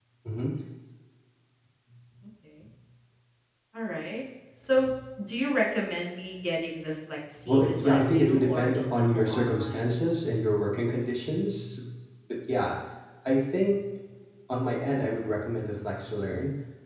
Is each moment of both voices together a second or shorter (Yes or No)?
No